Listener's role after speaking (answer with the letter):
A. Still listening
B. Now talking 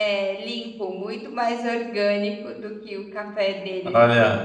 B